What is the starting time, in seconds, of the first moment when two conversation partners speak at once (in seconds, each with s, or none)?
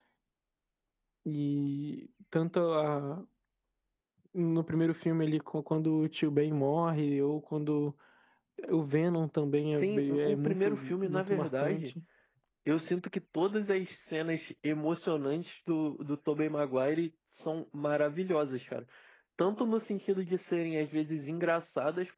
9.8 s